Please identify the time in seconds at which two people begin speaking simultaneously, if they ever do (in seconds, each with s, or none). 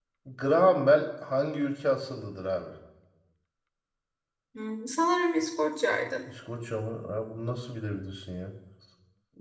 none